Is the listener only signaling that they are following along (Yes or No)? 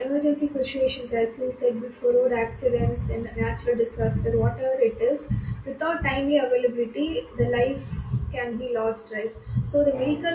Yes